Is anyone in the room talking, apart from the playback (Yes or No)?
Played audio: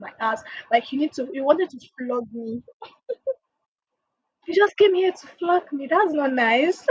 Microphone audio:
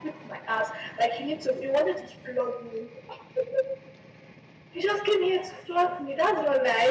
No